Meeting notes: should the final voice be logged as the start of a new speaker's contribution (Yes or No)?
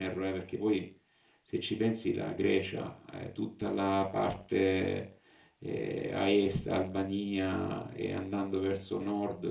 No